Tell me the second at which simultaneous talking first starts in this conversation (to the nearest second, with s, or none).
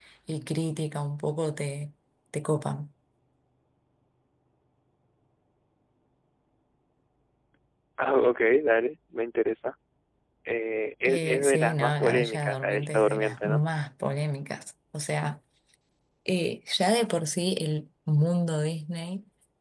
11 s